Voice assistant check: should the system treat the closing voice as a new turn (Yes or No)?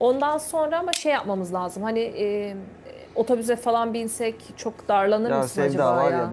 Yes